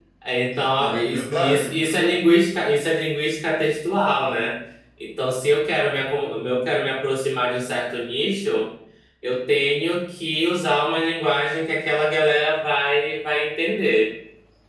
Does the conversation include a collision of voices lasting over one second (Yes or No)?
Yes